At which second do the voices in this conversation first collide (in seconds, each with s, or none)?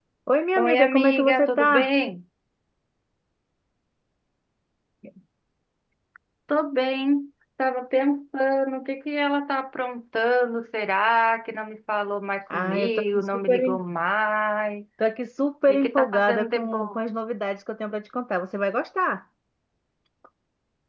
0.6 s